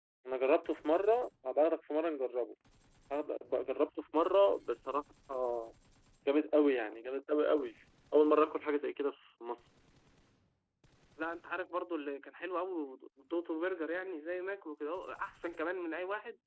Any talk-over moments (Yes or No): No